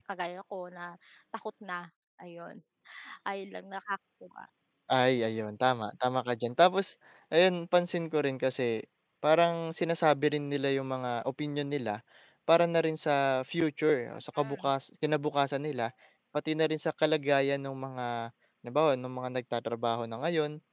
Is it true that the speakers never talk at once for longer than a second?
Yes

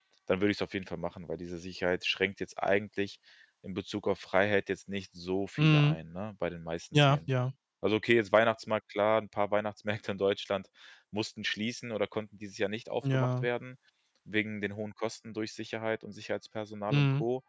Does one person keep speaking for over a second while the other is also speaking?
No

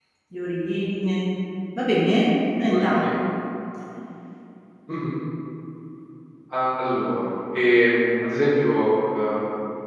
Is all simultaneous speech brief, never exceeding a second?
Yes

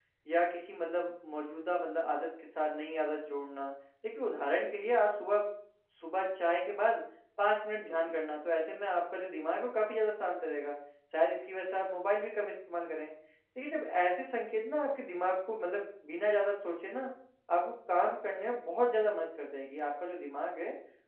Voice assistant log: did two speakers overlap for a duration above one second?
No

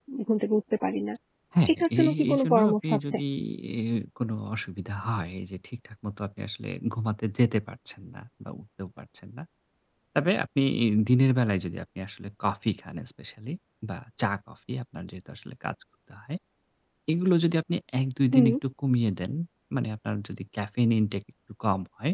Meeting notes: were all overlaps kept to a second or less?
No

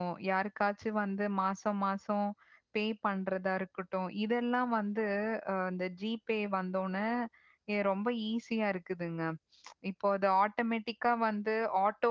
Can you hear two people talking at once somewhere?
No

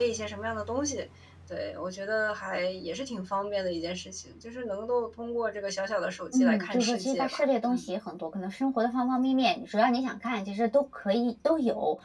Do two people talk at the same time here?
Yes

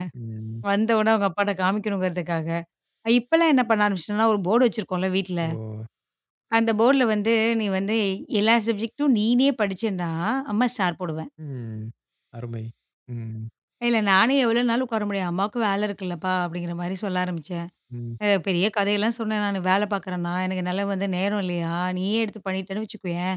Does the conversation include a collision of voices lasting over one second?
No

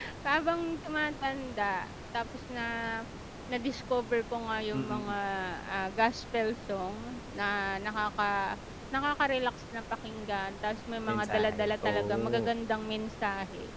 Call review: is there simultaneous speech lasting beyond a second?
Yes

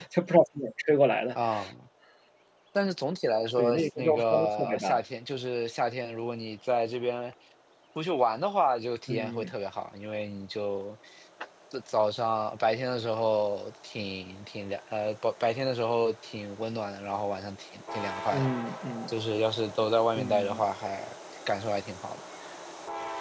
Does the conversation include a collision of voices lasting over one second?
Yes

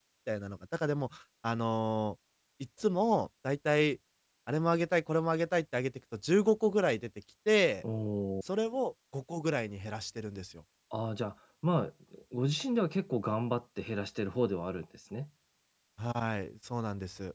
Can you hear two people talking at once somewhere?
No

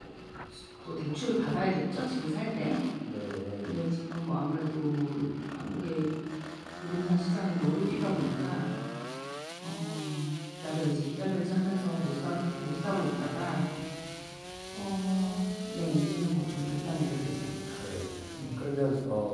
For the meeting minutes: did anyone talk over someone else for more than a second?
No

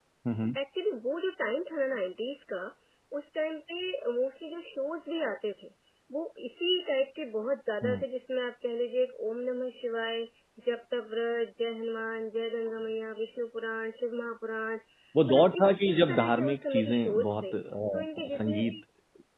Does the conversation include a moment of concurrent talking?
Yes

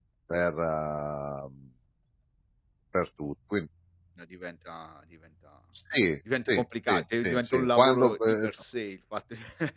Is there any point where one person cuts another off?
Yes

